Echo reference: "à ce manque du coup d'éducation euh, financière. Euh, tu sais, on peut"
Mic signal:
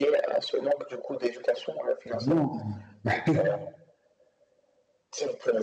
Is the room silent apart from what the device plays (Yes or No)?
No